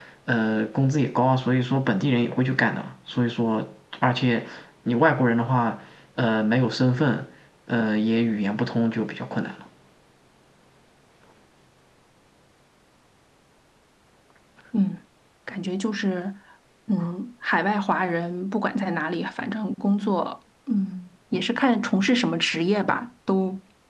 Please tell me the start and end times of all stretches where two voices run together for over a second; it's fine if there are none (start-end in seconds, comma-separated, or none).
none